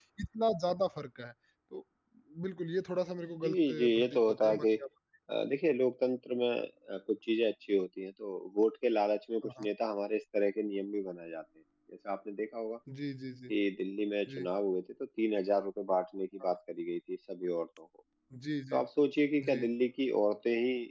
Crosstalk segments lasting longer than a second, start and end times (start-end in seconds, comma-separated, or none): 3.4-4.7